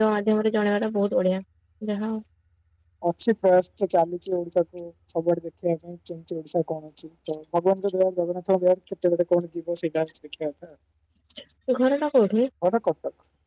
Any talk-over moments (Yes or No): No